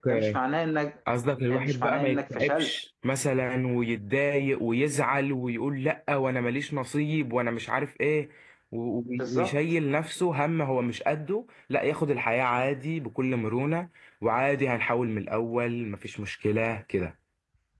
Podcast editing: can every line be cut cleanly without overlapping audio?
No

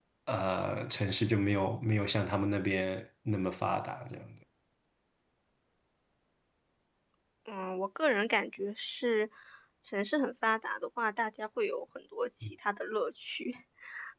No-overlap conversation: Yes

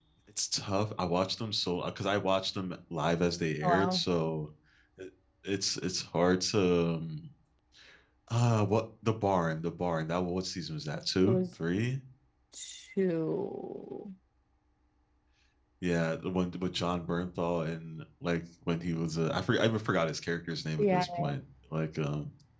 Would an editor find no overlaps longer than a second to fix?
Yes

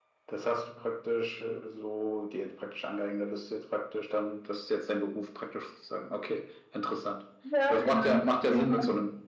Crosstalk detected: Yes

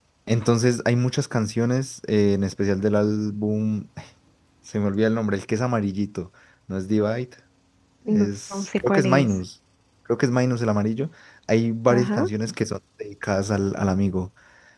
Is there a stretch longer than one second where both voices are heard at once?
Yes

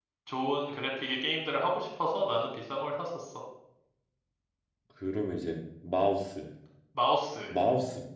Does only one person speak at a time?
Yes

